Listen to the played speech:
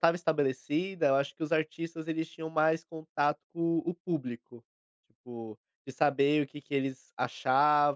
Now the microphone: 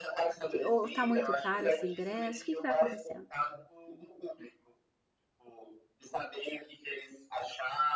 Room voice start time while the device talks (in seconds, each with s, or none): 0.5 s